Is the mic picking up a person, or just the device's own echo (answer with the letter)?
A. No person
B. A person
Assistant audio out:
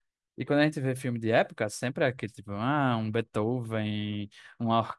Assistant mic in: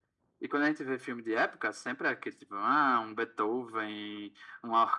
A